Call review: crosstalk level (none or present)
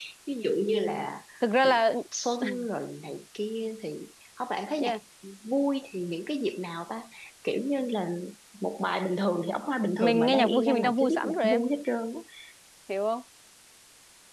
present